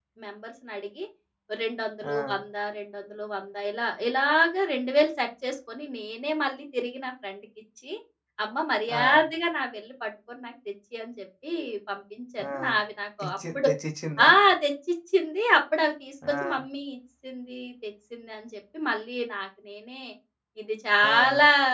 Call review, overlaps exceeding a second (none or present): none